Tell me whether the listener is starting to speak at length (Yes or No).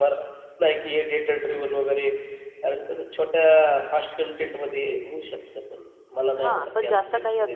Yes